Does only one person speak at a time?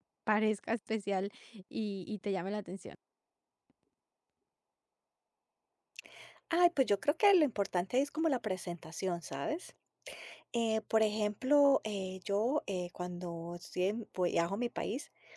Yes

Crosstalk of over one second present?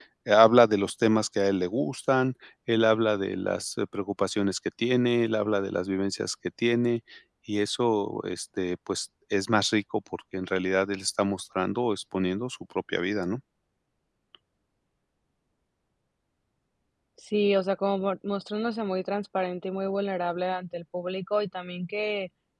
No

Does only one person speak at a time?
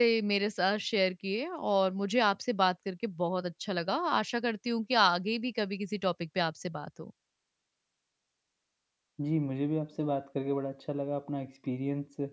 Yes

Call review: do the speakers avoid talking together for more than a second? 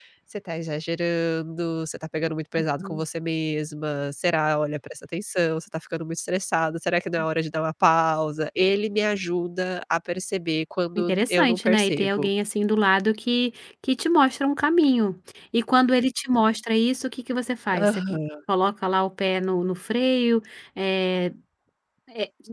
No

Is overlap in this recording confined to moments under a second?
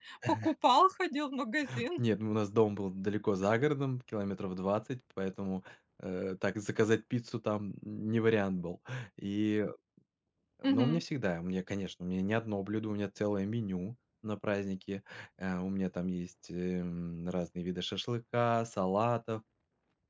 Yes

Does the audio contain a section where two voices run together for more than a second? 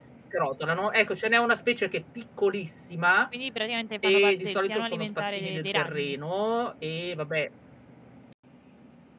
Yes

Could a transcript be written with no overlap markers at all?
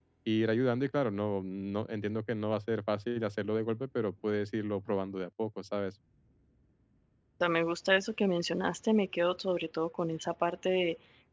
Yes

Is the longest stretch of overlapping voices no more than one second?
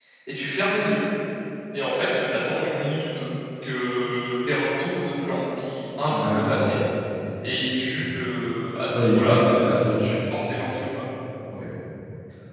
No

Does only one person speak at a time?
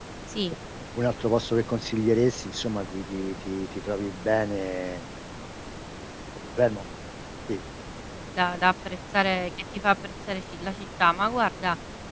Yes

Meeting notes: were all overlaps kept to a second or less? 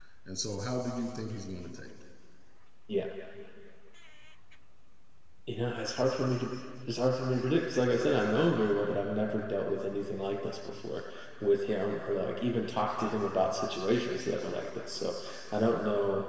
Yes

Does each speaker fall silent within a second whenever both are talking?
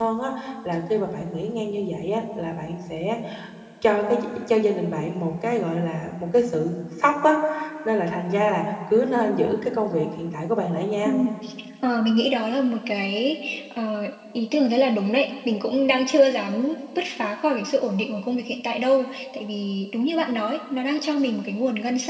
Yes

